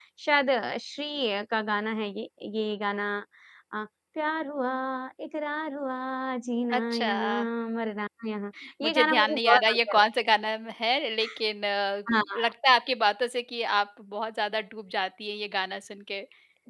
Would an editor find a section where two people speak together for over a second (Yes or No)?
Yes